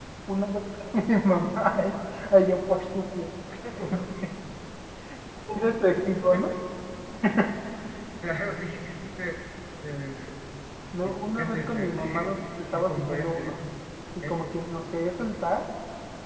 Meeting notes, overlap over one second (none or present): present